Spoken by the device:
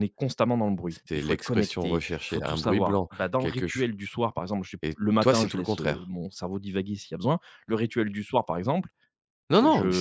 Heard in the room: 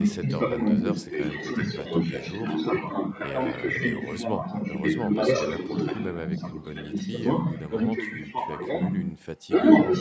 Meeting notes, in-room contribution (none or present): present